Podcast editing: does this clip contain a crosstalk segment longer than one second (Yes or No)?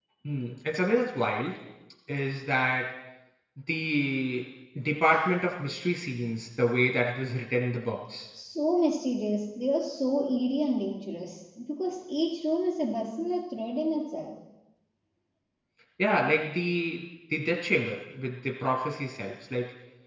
No